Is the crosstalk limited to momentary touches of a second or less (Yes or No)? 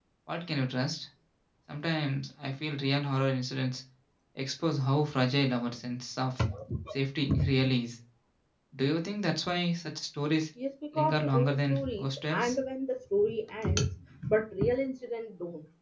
No